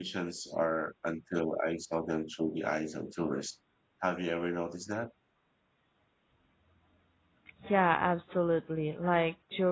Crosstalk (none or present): none